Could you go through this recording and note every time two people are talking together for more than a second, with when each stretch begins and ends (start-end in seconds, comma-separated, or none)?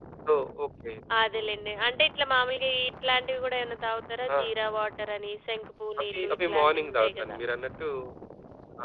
6.1-7.4